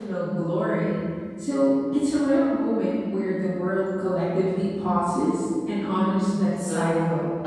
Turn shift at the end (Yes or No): Yes